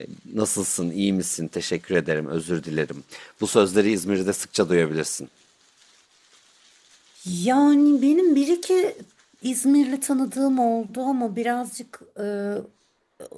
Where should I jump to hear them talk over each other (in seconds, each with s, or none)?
none